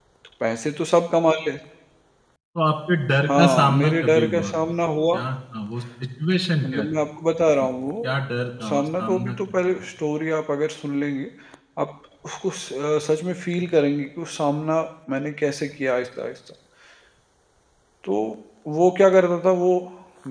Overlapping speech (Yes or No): Yes